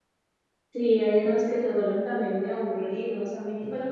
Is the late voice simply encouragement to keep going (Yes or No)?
Yes